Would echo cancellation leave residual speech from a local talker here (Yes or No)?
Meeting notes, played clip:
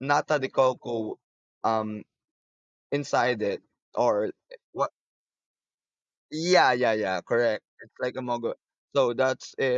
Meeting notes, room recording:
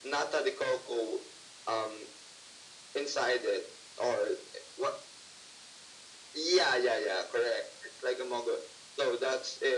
No